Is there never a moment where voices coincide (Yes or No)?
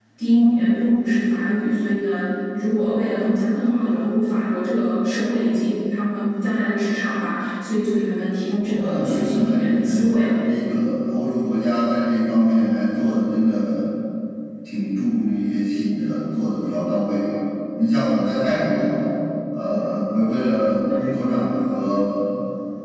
No